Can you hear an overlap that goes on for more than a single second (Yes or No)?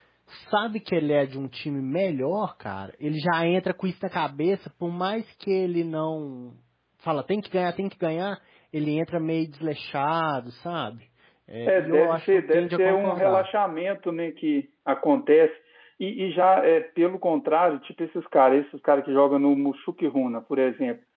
Yes